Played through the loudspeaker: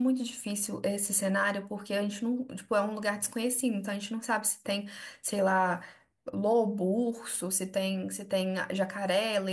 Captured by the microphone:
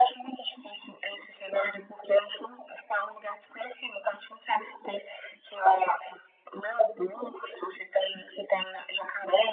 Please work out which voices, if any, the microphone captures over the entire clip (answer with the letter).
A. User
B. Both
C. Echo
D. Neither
C